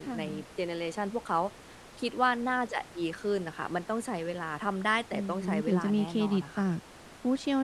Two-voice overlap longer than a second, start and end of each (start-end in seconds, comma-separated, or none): 5.1-6.6